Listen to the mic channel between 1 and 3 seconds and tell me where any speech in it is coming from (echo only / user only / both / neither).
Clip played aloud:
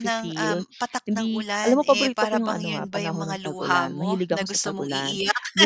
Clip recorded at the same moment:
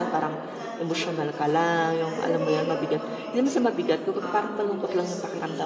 both